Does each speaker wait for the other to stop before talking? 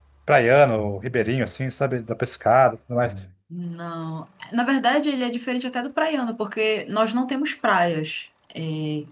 Yes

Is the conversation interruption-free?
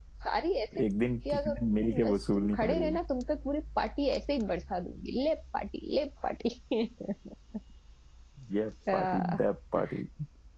No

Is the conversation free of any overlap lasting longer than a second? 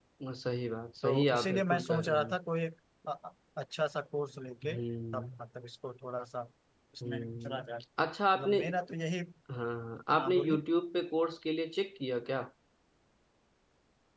No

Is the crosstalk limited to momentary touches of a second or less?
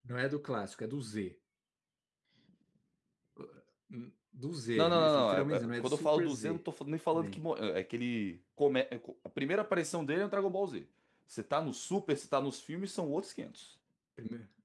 No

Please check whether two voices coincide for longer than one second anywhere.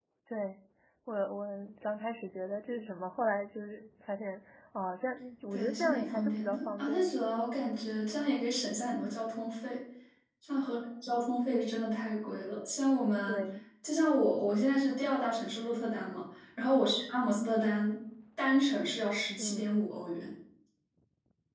Yes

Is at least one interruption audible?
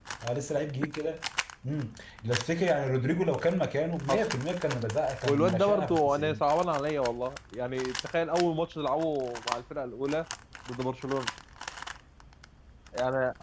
Yes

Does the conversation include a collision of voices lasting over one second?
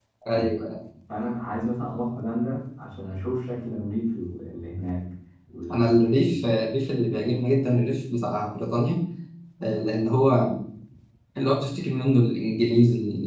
No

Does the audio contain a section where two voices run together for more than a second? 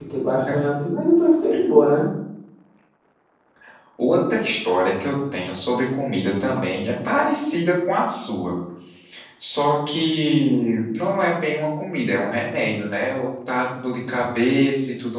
No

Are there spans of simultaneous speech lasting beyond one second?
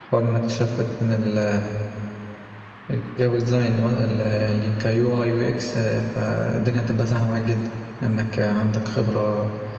No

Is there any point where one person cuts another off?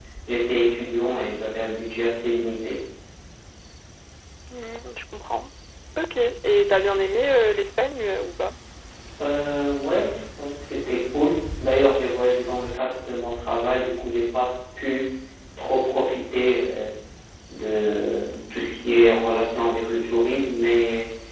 No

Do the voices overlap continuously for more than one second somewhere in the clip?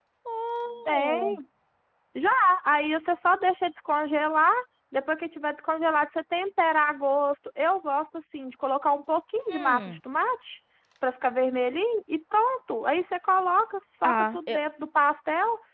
No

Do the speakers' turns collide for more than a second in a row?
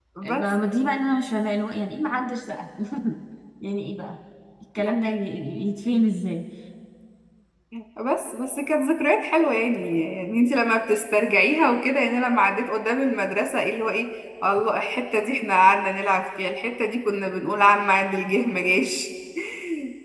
No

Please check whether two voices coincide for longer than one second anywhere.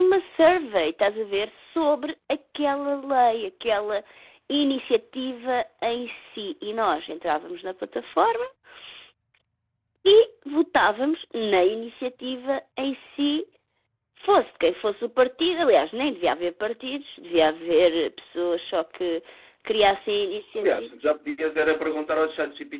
No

